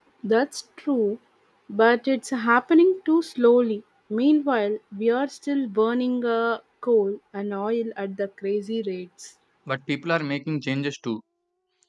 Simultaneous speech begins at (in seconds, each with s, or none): none